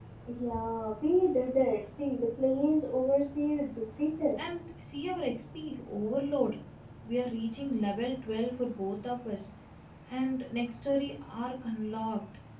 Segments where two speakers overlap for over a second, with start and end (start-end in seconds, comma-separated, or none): none